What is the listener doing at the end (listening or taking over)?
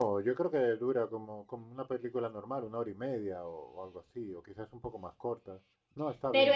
taking over